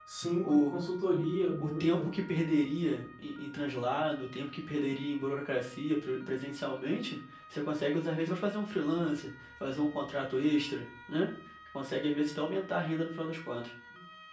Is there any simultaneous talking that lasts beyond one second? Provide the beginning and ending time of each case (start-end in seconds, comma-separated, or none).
none